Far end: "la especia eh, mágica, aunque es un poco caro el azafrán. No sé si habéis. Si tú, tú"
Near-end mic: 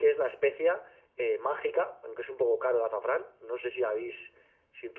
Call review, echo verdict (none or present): present